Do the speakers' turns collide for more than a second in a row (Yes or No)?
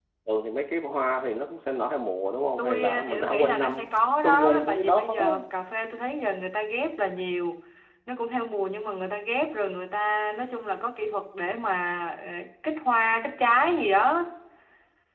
Yes